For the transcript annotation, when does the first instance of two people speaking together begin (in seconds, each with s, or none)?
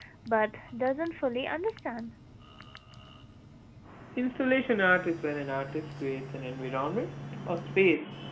none